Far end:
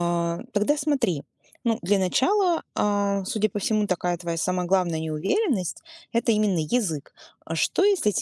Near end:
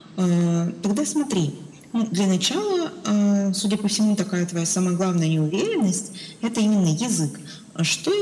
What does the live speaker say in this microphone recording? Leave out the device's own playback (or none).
none